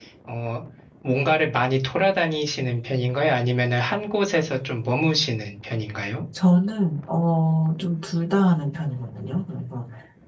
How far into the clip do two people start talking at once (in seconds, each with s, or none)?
none